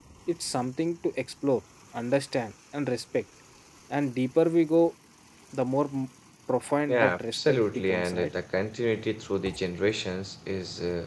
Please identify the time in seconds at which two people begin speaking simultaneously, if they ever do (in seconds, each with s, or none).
6.9 s